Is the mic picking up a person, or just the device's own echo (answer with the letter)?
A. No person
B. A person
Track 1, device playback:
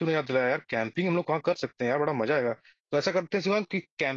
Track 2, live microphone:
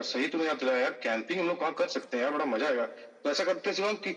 A